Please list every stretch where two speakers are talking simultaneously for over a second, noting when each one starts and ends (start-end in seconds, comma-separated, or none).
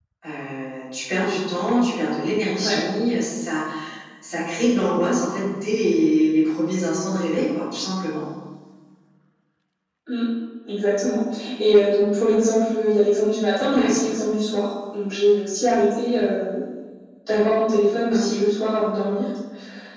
none